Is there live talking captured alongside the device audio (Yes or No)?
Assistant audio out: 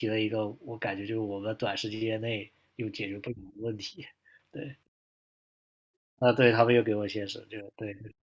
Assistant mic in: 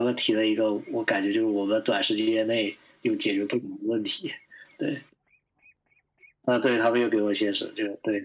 No